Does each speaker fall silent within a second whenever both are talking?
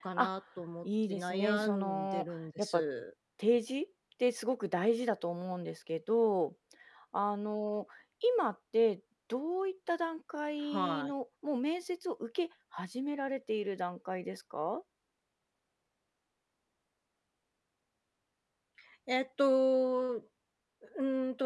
No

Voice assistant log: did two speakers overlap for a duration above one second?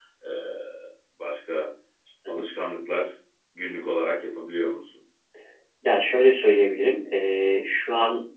No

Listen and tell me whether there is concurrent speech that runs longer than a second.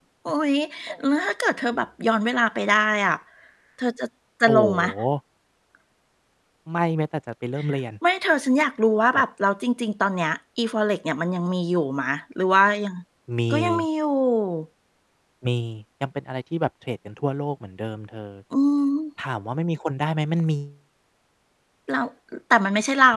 No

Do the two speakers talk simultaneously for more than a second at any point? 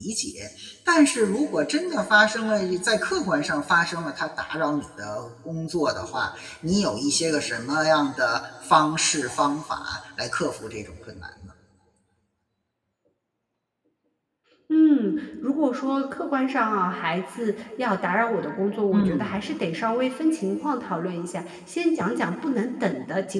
No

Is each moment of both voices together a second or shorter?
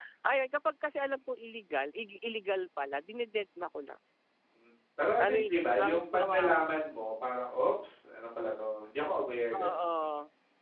No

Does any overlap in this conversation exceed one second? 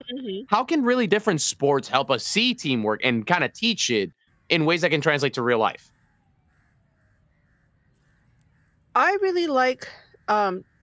No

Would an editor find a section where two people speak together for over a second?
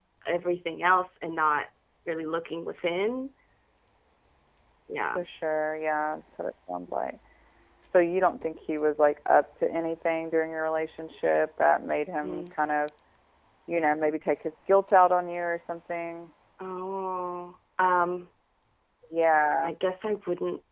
No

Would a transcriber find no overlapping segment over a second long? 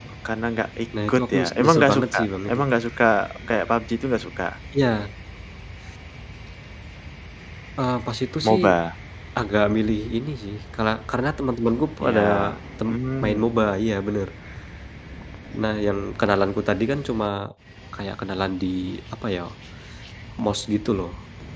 No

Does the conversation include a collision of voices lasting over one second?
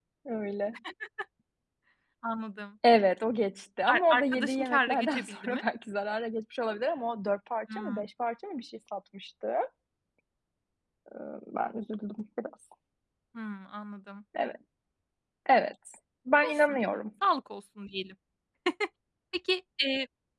Yes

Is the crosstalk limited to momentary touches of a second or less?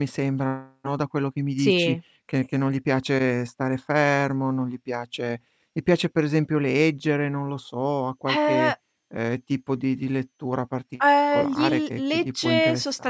No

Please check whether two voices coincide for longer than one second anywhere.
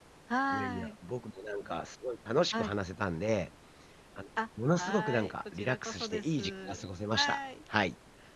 Yes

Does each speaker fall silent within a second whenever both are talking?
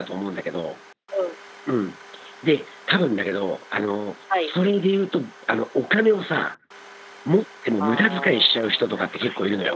No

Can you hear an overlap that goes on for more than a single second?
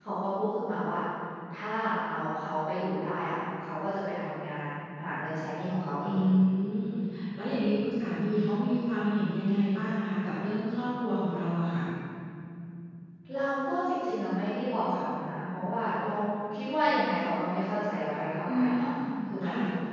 No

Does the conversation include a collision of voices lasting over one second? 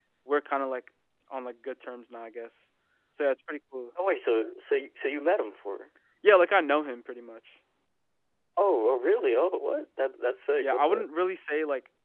No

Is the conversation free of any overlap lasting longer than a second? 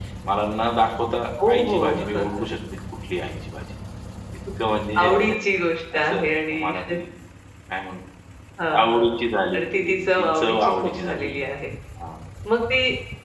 No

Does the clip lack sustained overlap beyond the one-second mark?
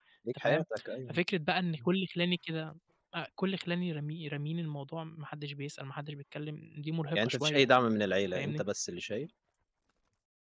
Yes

